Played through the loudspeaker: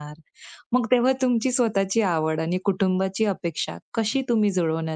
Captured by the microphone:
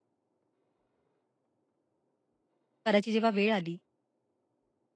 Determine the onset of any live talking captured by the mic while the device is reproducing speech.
2.9 s

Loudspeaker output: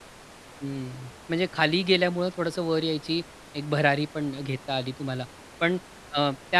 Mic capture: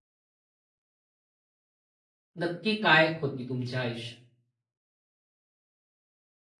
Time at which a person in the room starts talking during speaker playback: 2.4 s

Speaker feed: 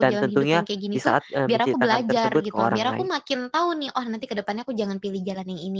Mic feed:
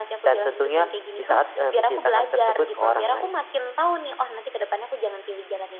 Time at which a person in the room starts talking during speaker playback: none

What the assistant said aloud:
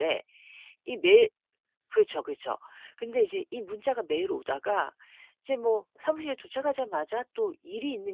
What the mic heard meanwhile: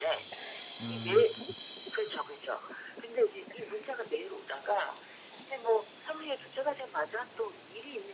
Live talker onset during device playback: 0.8 s

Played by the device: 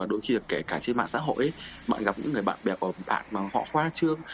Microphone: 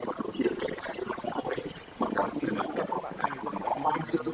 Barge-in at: 2.0 s

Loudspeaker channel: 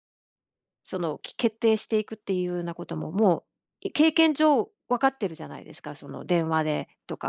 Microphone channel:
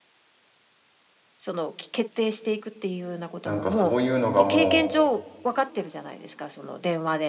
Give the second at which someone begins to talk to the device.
3.4 s

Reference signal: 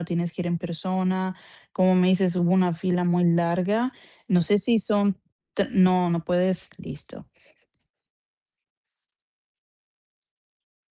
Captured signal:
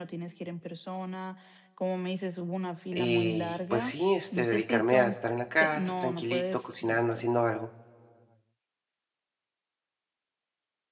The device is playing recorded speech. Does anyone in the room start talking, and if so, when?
2.9 s

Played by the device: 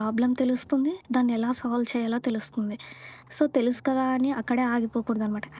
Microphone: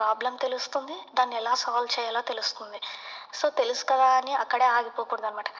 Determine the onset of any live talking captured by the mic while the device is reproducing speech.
none

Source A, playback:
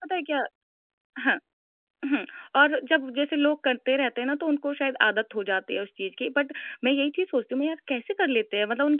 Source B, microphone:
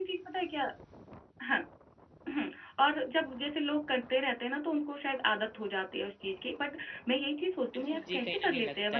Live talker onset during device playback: 7.8 s

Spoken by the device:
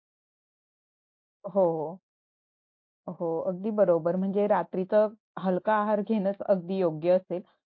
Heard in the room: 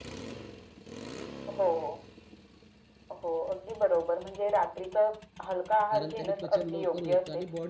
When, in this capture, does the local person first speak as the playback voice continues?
5.9 s

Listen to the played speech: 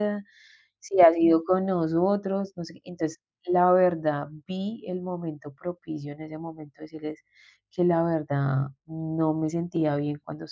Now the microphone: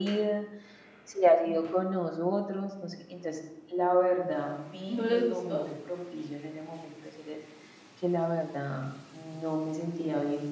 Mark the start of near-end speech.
4.9 s

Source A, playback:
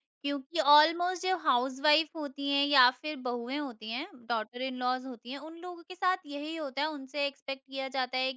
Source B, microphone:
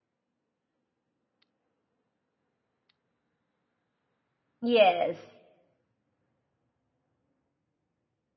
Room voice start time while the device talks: 4.7 s

